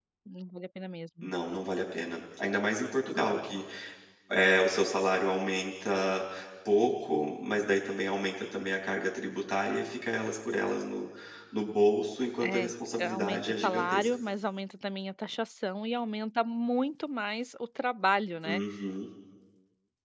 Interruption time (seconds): 12.4 s

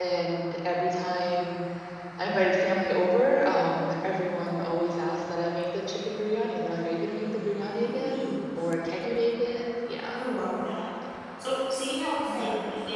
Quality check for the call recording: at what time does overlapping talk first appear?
7.4 s

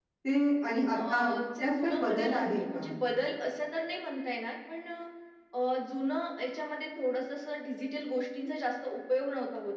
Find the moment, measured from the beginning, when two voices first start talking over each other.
0.9 s

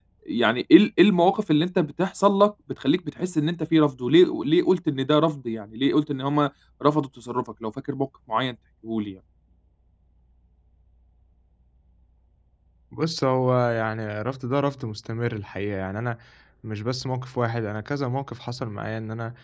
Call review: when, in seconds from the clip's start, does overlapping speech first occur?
none

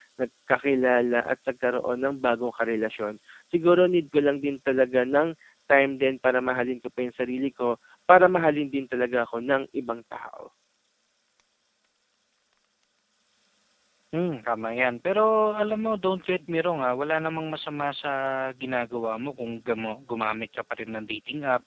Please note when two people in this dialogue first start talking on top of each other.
none

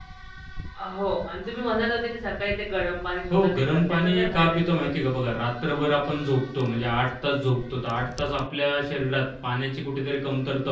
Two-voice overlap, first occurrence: 3.3 s

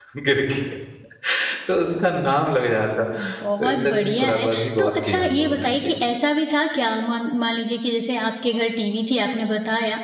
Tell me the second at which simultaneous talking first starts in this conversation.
3.1 s

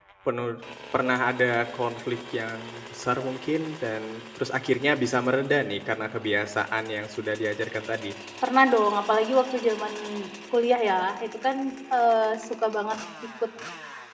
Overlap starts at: none

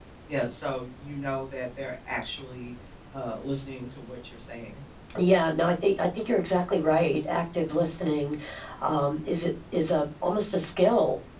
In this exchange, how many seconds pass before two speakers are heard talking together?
none

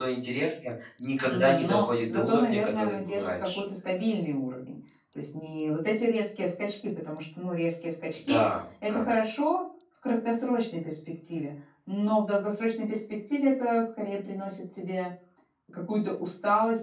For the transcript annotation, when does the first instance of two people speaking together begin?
1.2 s

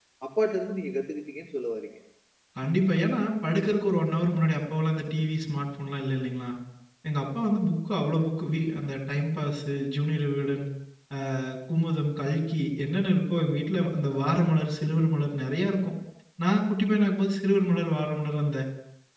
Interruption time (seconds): none

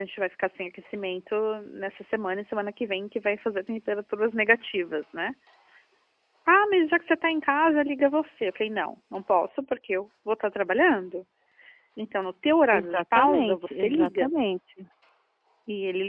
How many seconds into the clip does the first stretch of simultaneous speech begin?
12.7 s

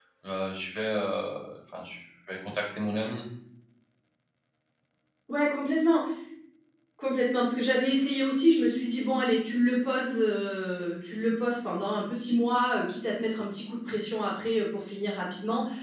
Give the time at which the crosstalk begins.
none

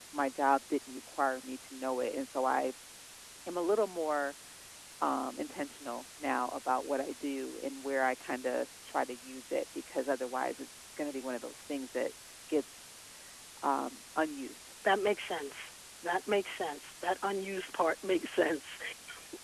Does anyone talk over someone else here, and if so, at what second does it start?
none

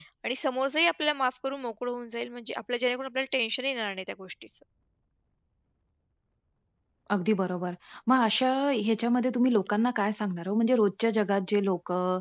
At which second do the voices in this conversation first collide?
none

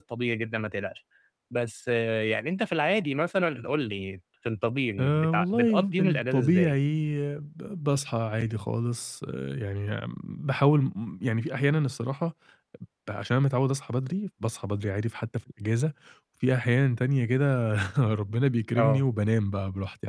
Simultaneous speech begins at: 5.0 s

